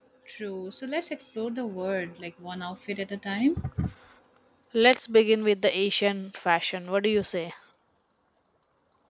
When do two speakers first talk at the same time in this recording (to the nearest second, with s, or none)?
none